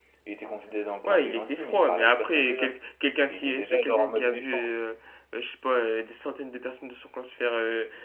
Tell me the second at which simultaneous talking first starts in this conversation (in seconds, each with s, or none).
1.0 s